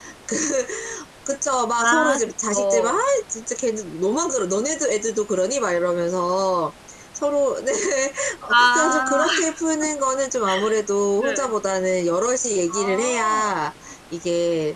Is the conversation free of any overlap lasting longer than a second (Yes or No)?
No